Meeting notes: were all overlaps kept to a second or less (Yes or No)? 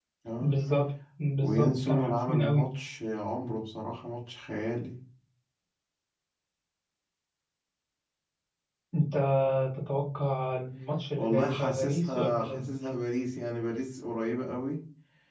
No